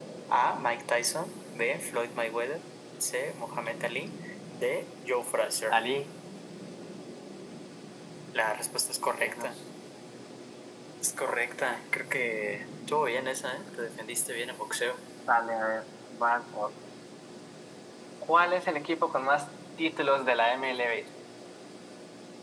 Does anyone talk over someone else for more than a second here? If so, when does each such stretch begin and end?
none

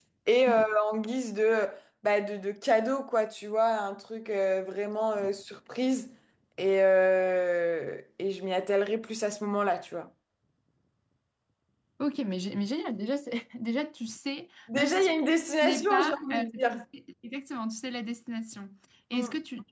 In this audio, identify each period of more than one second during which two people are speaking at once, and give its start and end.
15.6-16.8

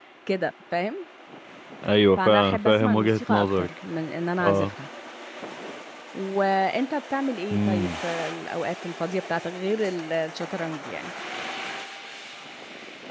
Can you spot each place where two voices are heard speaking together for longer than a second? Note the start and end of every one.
2.2-3.7

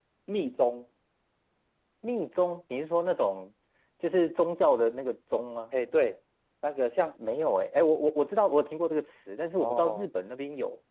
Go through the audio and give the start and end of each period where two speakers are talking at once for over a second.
none

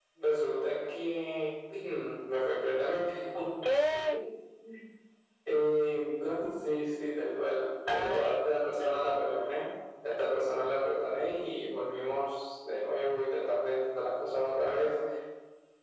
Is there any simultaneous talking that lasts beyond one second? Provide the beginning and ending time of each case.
7.9-9.2

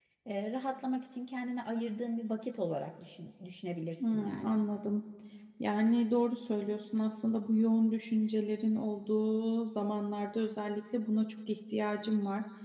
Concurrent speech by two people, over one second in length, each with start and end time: none

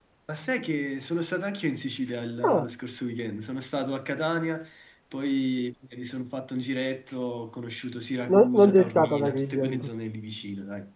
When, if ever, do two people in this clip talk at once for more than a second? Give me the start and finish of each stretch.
8.3-9.9

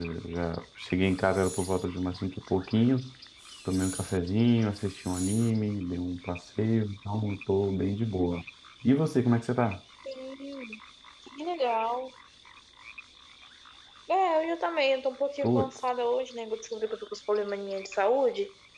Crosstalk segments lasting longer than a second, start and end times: none

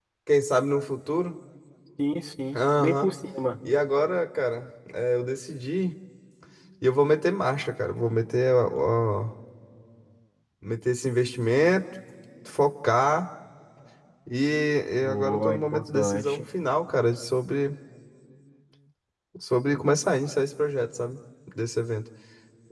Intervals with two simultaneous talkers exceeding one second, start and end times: 15.0-16.4

